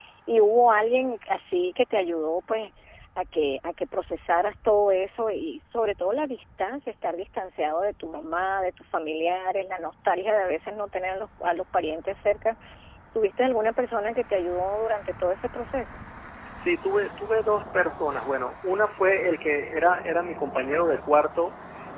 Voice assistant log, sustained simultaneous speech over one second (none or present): none